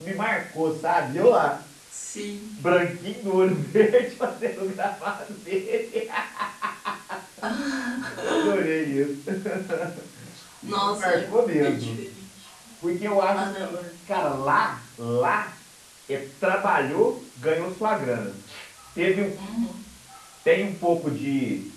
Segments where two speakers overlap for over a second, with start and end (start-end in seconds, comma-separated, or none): 10.6-12.0